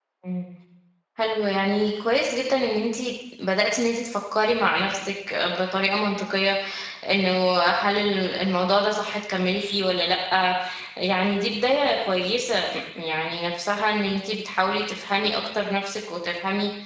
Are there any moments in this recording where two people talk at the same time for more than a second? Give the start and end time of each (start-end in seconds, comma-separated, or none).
none